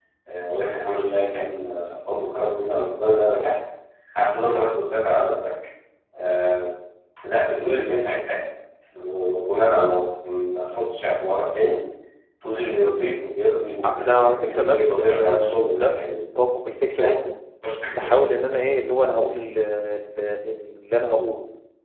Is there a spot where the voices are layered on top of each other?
Yes, from 13.8 s

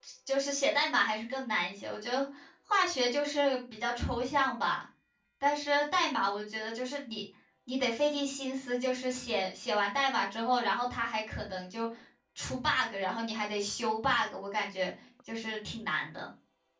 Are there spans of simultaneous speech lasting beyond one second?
No

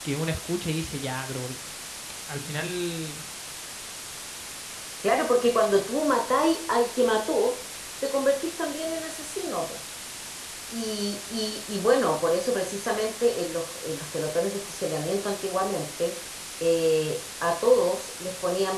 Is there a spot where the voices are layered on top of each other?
No

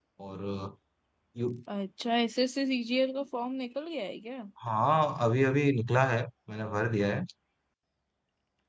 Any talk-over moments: No

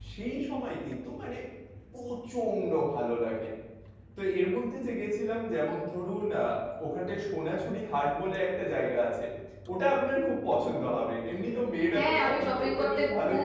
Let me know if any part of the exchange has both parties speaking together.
Yes, from 11.9 s

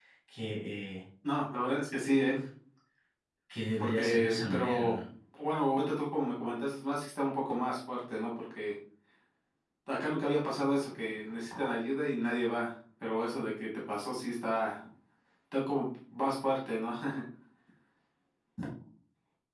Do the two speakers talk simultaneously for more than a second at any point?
Yes, from 3.8 s

